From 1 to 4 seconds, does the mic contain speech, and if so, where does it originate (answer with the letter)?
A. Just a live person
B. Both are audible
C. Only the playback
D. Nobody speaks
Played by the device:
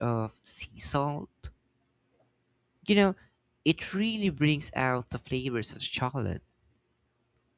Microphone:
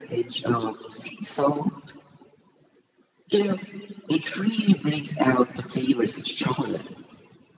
C